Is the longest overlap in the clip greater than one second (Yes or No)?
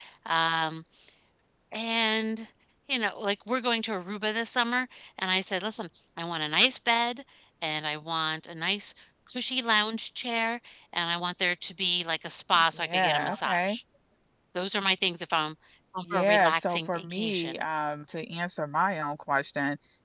Yes